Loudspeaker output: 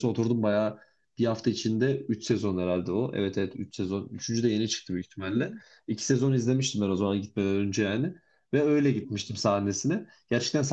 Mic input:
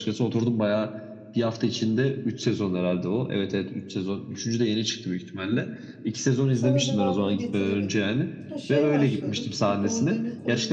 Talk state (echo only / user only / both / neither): both